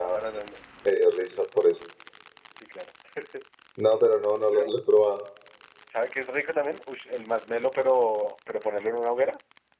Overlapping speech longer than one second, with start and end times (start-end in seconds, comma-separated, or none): none